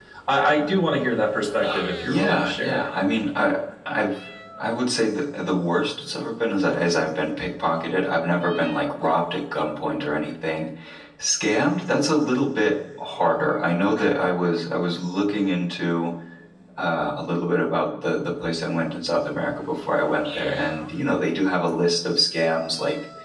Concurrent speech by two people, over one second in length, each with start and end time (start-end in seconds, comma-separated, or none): 1.6-2.8